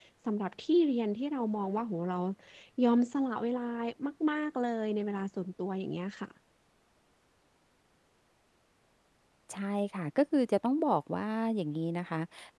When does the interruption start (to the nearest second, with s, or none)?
none